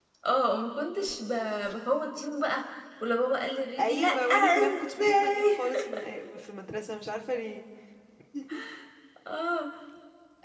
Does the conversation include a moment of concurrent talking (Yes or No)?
Yes